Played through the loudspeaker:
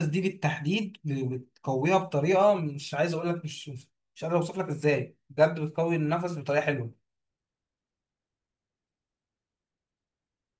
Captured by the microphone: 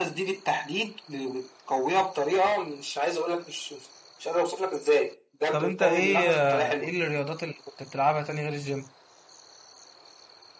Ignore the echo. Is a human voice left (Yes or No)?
Yes